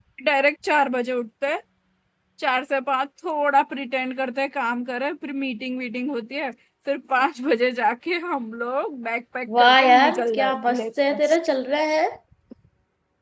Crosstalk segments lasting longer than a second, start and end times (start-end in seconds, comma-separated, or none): 9.6-11.2